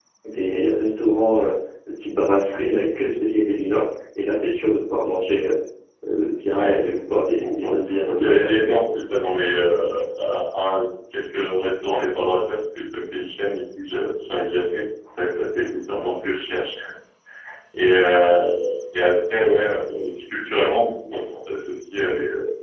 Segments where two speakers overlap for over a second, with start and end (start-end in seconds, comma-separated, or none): 6.6-7.8